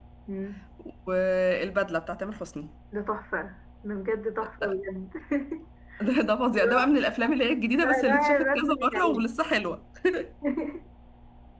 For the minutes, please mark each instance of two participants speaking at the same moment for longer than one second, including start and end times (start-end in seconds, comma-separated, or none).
8.0-9.2